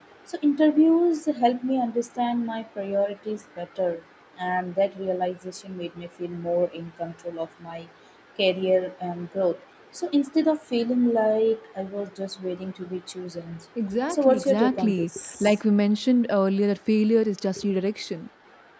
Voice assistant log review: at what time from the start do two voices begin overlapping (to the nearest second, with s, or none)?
14 s